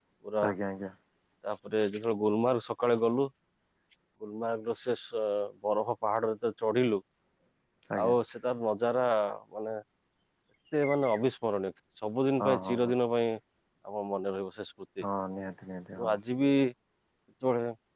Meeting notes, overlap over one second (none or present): none